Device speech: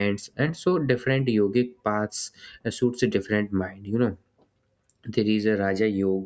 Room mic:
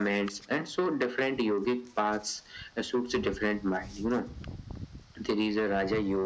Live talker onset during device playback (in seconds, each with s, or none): none